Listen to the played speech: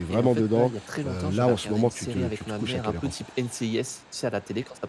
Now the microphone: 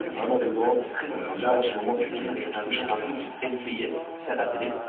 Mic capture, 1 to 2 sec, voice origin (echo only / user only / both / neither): both